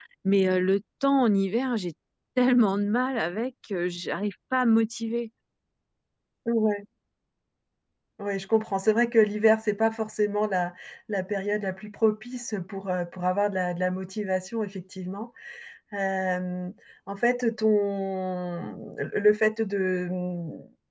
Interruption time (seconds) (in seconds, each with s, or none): none